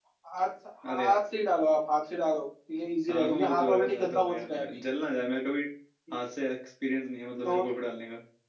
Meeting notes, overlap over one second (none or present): present